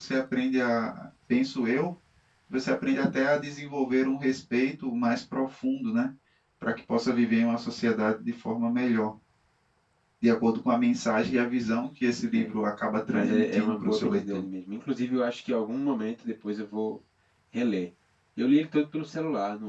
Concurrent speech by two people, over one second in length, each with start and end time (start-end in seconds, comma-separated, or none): 13.1-14.4